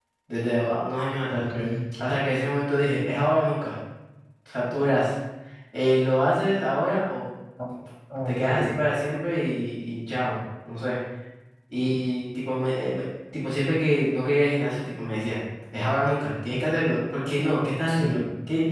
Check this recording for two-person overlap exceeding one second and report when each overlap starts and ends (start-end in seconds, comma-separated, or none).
none